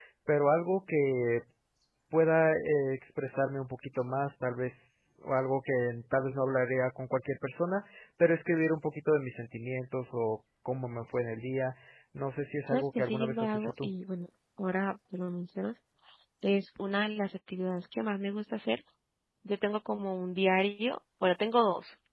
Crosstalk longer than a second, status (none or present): present